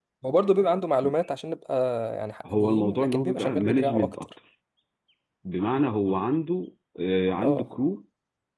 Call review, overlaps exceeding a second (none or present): present